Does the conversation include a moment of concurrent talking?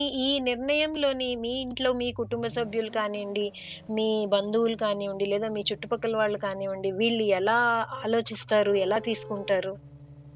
No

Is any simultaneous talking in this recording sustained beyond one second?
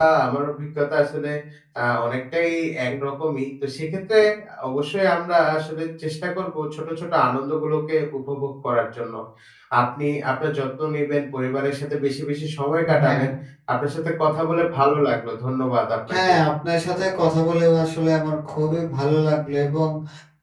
No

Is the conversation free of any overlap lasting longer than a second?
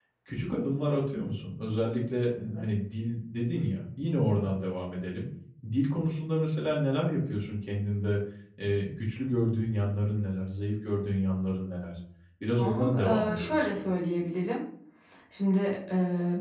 No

